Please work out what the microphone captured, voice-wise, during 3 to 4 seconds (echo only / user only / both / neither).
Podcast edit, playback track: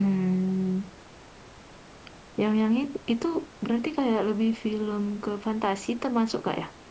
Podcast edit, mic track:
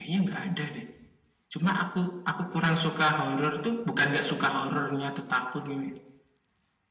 user only